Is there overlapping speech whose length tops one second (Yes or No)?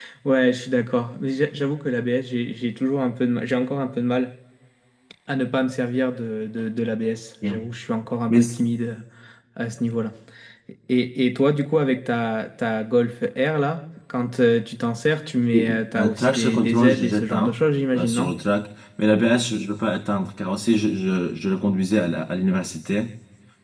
Yes